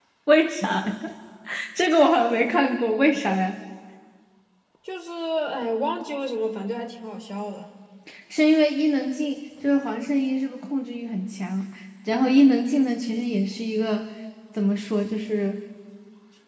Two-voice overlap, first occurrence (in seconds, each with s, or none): none